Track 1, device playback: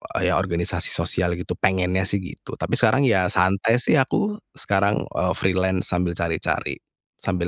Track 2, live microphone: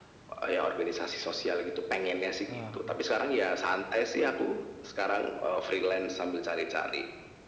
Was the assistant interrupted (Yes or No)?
Yes